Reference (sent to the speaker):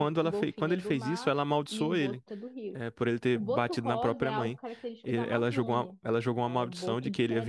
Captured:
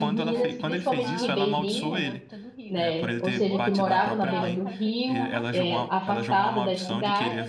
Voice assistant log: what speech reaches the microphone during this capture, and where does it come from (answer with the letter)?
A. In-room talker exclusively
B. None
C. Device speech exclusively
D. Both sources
D